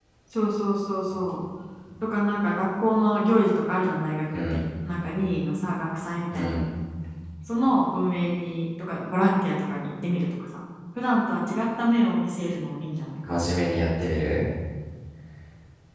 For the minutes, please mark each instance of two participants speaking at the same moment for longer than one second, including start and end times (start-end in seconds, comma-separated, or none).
none